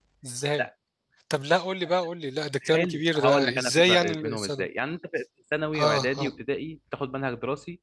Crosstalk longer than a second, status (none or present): present